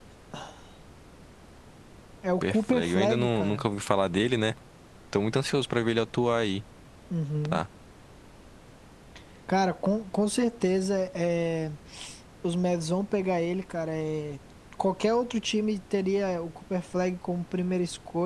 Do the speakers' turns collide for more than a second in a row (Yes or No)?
Yes